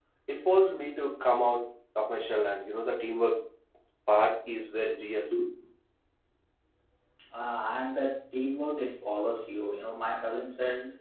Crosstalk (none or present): none